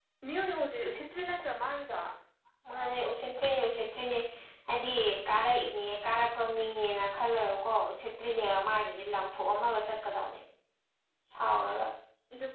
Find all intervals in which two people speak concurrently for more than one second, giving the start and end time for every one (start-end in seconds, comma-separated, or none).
none